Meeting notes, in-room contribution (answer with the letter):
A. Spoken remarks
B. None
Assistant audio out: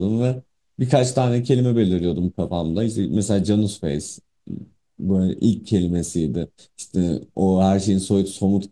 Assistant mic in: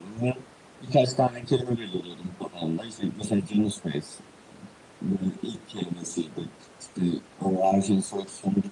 B